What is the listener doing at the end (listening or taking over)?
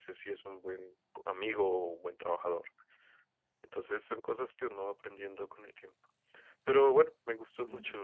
listening